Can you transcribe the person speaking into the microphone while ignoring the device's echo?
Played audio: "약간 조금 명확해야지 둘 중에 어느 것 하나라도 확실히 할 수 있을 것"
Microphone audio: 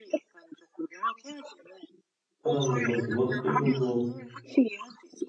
하다 보면 그것들로도

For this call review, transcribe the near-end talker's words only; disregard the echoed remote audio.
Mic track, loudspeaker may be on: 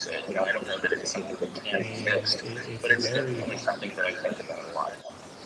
and it it's a very

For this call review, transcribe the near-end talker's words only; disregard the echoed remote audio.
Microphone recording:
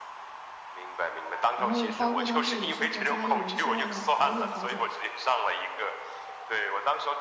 然后包括当时也是和家里人商量了好久好久。

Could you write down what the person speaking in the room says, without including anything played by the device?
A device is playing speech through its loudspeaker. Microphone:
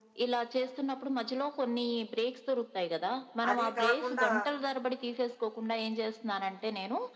అది కాకుండా

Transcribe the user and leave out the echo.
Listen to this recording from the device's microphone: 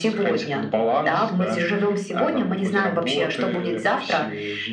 none

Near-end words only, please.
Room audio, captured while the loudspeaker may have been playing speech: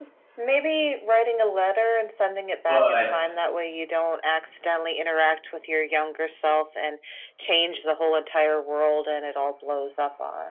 but

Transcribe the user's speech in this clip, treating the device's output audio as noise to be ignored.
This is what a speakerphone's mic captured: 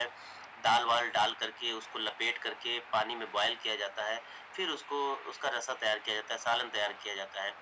none

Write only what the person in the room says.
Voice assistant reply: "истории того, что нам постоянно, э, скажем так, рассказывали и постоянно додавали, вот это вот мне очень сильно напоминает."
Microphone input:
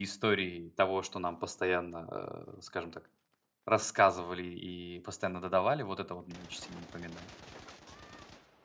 none

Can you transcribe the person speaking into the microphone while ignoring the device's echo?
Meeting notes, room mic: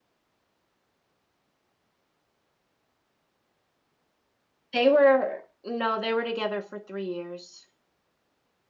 They were no, they were together for 3 years.

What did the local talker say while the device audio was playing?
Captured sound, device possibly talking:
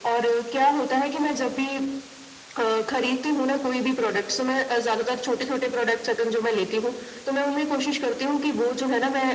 none

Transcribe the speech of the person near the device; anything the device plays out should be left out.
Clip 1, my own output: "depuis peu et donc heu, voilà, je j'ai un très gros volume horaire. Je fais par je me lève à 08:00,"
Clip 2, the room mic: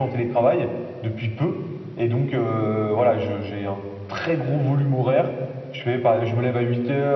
none

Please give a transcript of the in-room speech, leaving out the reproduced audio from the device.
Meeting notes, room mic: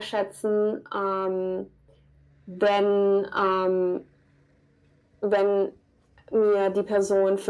none

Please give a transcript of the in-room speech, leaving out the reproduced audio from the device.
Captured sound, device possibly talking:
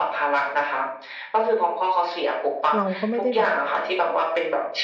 เราก็ไม่ได้แบบ

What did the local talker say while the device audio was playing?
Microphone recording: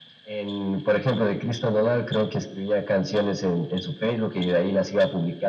none

